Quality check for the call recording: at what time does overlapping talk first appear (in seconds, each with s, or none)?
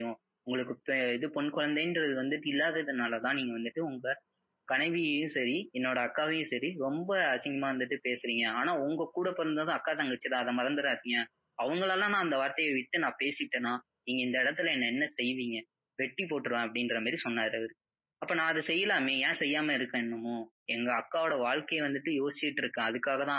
none